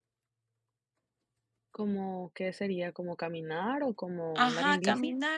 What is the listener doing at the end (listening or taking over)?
taking over